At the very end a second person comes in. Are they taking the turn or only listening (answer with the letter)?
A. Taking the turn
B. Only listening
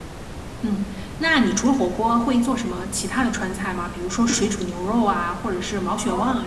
A